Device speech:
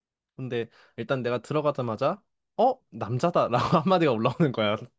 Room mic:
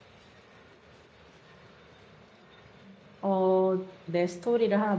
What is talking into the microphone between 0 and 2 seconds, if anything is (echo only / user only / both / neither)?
neither